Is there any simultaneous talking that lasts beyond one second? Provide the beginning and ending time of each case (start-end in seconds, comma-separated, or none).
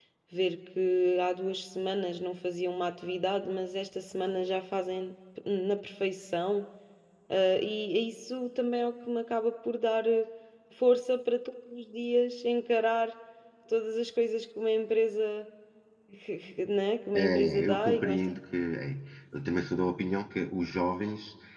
17.1-18.4